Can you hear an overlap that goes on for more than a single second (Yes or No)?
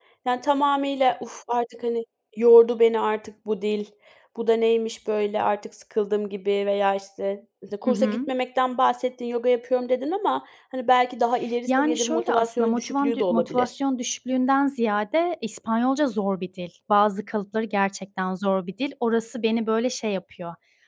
Yes